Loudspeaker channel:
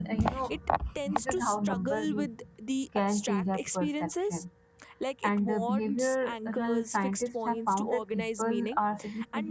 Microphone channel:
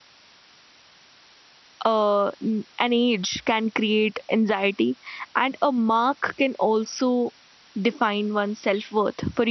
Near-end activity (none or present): present